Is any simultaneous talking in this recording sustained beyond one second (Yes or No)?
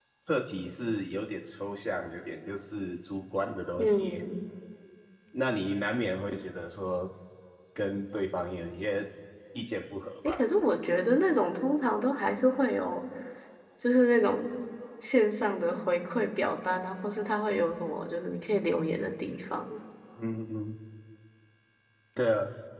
No